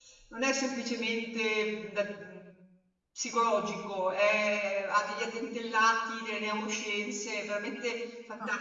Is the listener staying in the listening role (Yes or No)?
No